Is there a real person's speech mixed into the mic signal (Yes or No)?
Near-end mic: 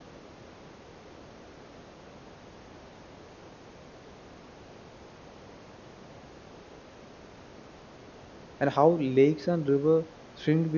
Yes